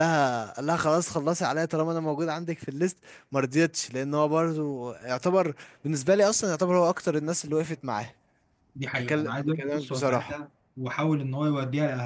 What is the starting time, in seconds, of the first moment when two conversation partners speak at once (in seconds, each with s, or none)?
8.9 s